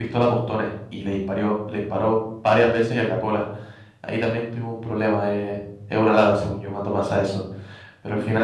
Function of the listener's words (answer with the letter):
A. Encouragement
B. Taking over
A